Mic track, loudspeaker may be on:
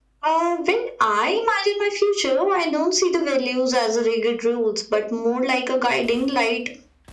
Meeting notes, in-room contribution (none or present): none